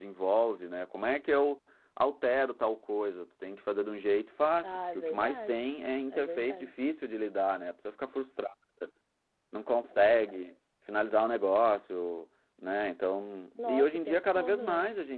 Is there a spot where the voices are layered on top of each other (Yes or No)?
Yes